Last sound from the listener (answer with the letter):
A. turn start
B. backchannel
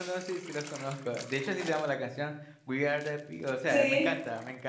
B